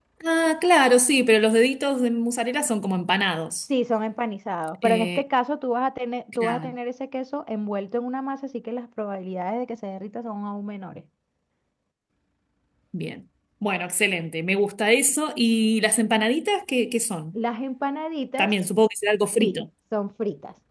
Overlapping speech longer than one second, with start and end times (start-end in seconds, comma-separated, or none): none